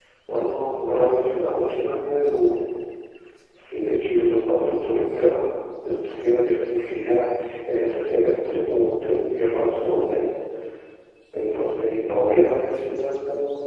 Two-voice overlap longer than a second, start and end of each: none

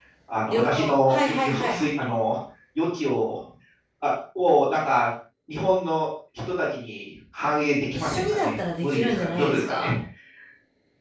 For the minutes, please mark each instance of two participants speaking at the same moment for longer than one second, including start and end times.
0.5-1.9, 7.9-9.9

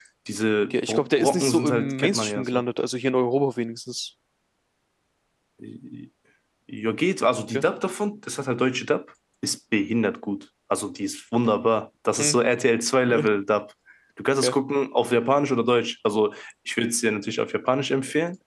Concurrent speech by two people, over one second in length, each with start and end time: 0.7-2.6

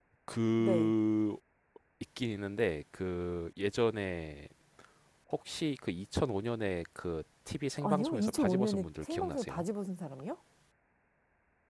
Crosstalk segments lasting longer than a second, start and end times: 7.8-9.6

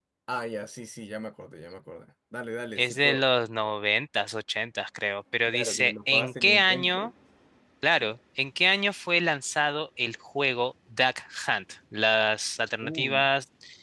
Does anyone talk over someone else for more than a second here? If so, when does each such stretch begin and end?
5.5-7.1

